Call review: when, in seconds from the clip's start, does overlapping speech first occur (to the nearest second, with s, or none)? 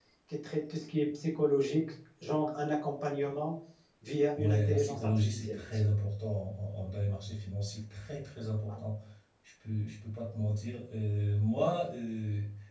4 s